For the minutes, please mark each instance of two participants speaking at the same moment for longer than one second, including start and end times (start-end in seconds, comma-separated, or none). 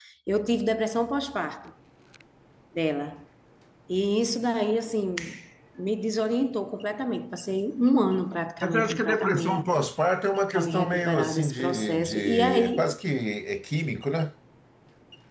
8.6-9.9, 10.5-12.8